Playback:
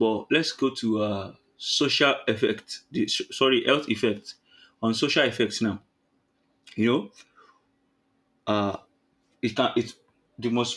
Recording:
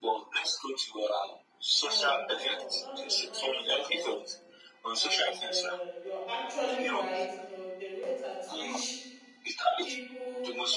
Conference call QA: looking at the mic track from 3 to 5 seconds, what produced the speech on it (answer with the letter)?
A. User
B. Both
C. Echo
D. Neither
B